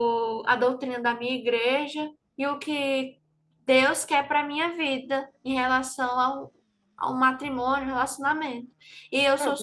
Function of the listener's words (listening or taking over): listening